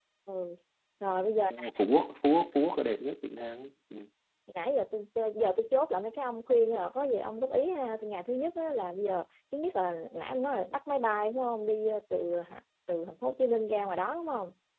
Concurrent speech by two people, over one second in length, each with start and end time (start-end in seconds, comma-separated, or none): none